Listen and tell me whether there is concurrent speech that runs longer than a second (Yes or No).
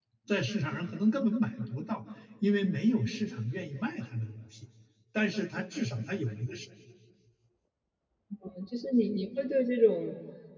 No